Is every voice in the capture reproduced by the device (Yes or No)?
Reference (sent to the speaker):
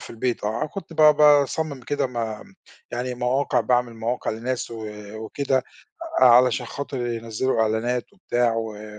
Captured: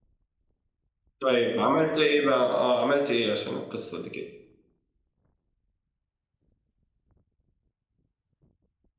No